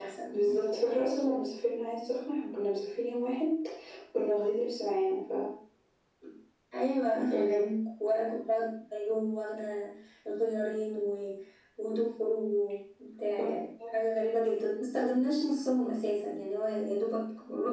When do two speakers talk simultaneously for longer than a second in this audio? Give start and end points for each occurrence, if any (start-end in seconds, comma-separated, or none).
none